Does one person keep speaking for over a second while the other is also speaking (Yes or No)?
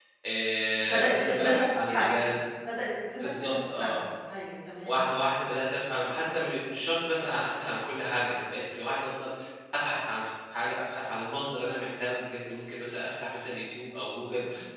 Yes